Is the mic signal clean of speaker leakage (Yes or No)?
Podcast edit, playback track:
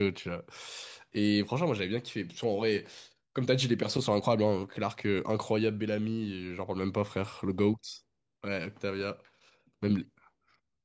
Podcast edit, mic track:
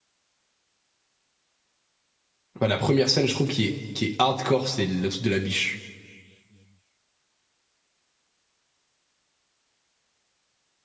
Yes